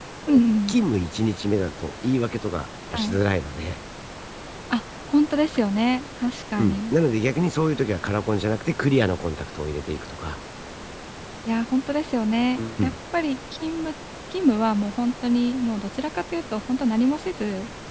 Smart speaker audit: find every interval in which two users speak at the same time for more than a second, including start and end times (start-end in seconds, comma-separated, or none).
none